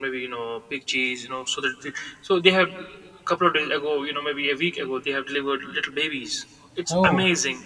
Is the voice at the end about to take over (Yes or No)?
No